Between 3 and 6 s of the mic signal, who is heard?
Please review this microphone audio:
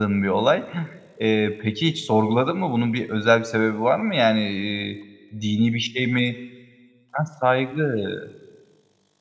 user only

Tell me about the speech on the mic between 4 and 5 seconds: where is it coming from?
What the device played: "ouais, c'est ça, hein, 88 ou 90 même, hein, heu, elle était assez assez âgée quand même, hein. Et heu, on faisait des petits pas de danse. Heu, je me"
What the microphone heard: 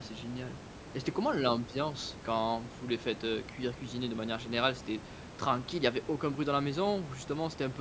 user only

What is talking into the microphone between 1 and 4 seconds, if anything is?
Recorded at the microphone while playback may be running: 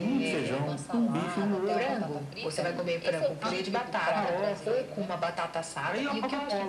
both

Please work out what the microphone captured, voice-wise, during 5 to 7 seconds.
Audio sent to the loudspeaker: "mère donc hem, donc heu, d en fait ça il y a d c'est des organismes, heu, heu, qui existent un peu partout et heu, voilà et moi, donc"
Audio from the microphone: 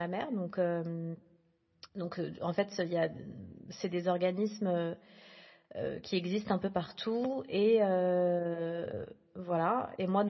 echo only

